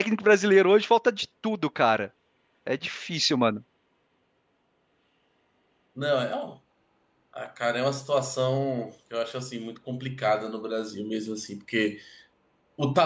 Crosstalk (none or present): none